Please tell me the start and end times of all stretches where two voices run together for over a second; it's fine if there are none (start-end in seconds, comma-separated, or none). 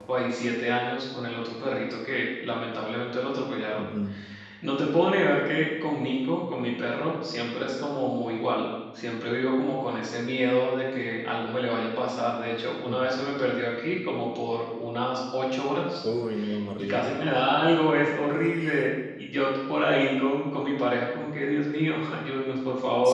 none